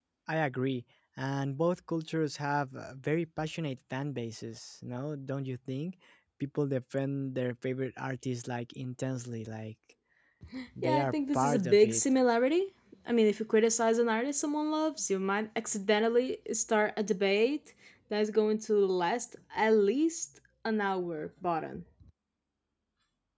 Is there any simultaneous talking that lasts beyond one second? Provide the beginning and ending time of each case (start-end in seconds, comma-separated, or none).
10.8-12.0